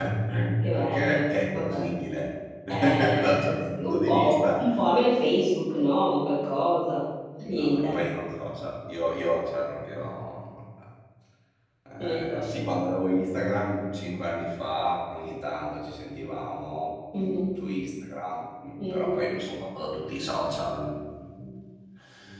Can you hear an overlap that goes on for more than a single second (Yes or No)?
Yes